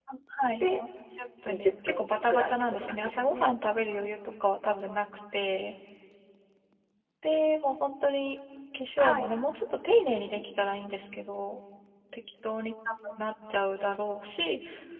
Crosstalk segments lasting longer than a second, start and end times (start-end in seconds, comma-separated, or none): 1.4-3.5